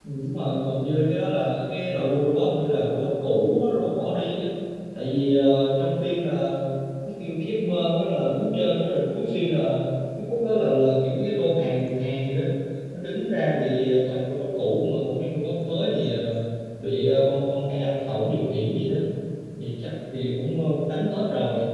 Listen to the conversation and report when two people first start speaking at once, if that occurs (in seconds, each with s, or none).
none